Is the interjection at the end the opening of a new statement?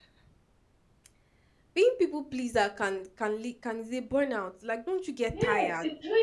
Yes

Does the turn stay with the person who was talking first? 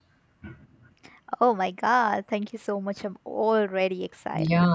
No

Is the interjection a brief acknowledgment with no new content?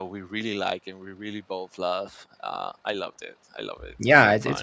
No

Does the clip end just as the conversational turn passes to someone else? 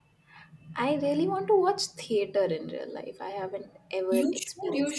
Yes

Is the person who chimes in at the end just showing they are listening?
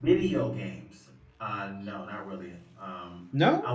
Yes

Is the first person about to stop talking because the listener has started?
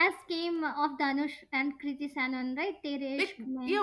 Yes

